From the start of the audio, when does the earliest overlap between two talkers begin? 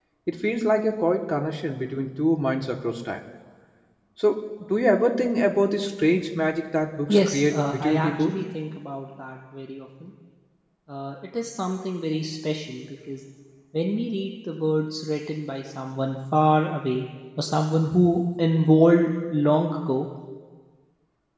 7.1 s

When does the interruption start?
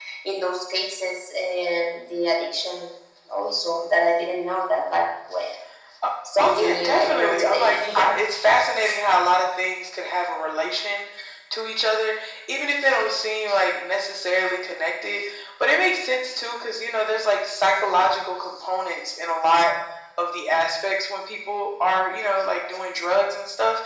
6.4 s

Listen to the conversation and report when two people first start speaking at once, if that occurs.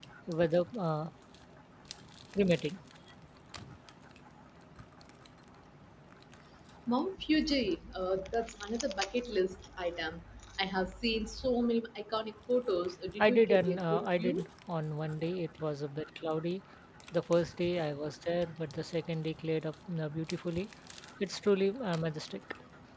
13.2 s

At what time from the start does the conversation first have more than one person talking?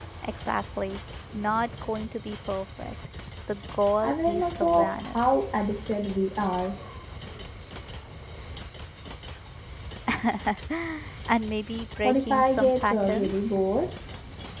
4.0 s

